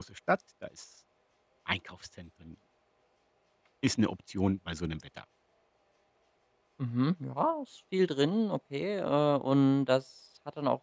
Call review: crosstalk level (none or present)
none